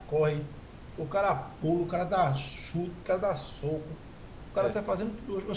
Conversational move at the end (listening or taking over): listening